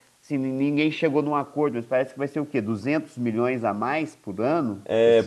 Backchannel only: No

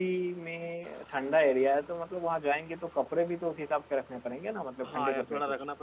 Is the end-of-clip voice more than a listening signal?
Yes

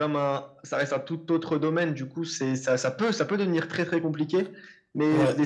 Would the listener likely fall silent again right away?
Yes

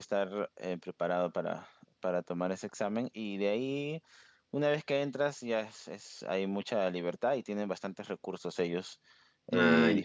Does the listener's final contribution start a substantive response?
No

